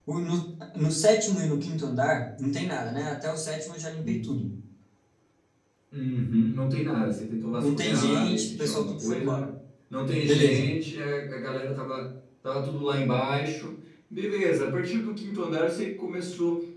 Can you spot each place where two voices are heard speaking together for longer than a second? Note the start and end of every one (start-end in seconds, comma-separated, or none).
7.5-9.5